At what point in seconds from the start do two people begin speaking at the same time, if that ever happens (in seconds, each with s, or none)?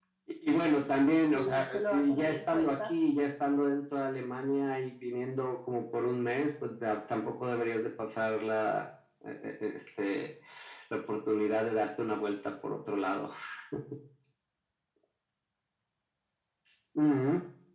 1.3 s